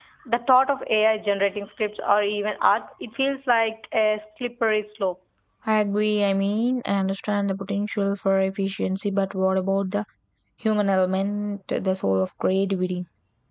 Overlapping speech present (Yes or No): No